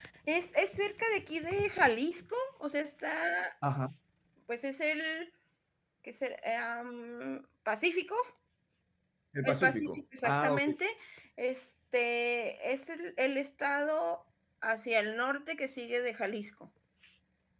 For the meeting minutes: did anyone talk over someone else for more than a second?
Yes, from 9.4 s

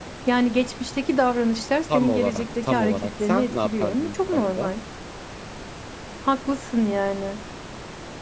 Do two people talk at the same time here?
Yes, from 1.9 s

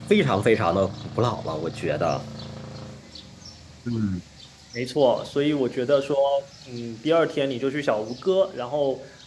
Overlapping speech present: No

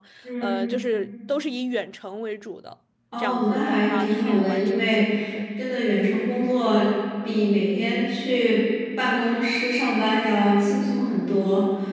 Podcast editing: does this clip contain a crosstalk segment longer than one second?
Yes, from 3.1 s

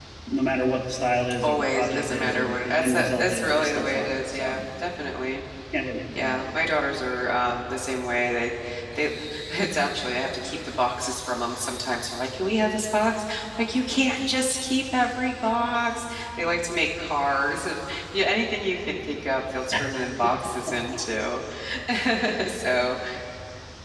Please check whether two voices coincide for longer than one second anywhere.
Yes, from 1.4 s

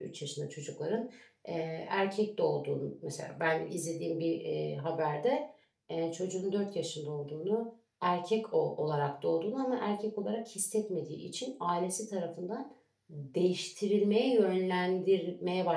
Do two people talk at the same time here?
No

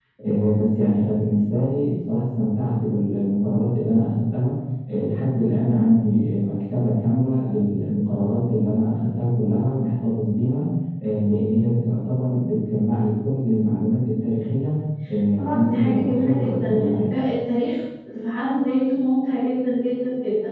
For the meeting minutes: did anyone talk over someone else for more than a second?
Yes, from 15.4 s

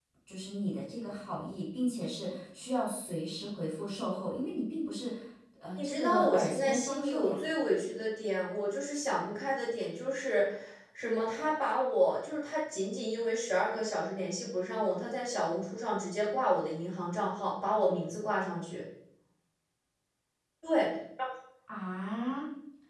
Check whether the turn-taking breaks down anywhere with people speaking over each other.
Yes, from 5.8 s

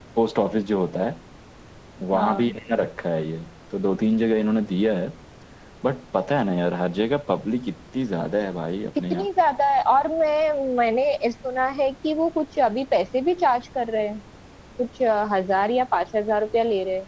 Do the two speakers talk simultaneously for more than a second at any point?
No

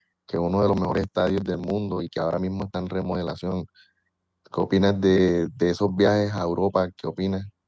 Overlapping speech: No

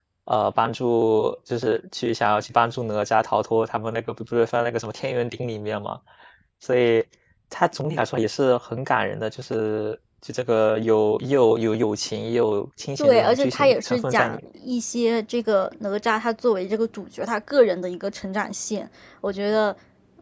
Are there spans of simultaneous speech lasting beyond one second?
Yes, from 13.0 s

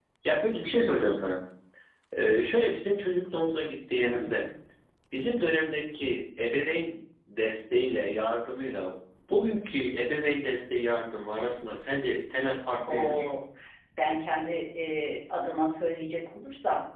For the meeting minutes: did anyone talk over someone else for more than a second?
No

